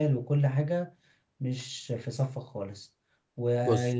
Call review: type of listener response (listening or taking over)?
listening